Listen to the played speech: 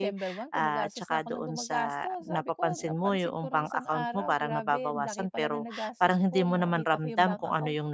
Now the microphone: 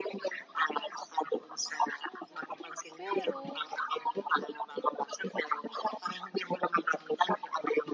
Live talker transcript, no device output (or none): Pero